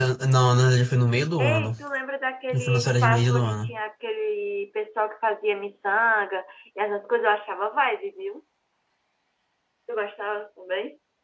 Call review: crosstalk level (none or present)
present